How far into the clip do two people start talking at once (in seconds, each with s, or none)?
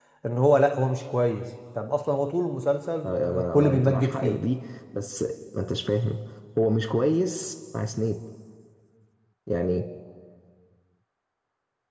3.0 s